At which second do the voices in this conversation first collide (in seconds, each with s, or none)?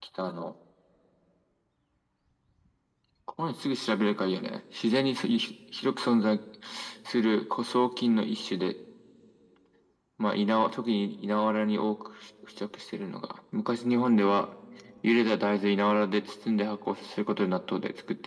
none